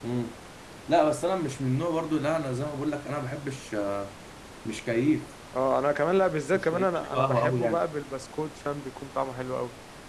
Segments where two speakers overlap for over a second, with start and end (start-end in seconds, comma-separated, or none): 6.5-7.8